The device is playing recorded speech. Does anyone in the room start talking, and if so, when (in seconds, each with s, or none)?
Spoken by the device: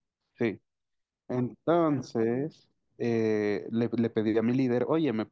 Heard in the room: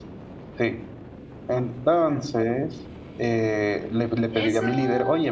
4.3 s